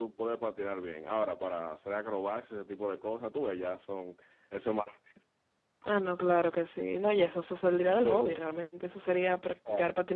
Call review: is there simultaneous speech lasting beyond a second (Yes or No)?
No